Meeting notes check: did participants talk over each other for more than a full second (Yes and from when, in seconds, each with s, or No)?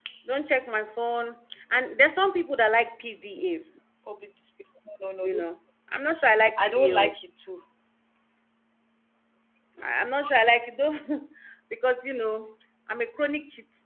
No